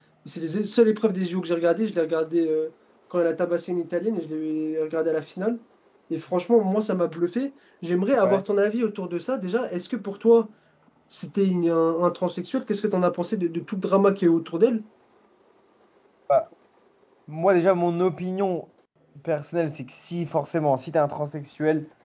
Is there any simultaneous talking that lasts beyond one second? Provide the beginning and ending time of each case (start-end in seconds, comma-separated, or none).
none